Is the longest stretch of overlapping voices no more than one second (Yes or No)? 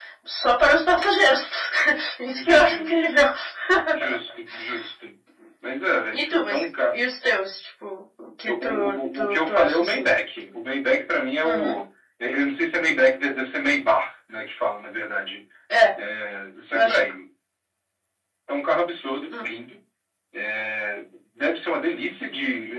No